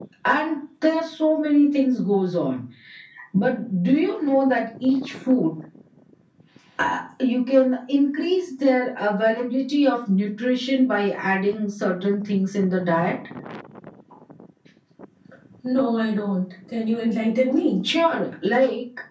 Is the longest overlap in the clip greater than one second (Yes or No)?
No